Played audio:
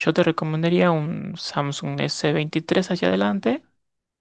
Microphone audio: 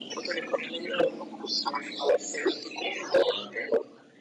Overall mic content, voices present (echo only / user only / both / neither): echo only